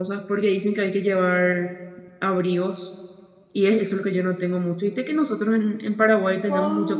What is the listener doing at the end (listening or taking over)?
taking over